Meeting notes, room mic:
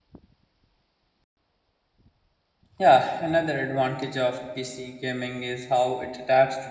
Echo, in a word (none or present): none